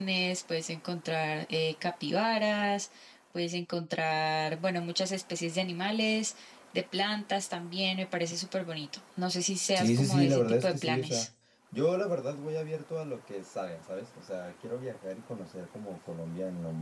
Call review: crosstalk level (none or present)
present